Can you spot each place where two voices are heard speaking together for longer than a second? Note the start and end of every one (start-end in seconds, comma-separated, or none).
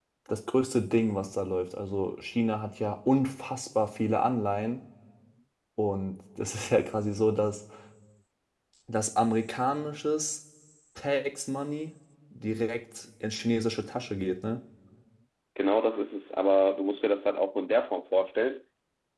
none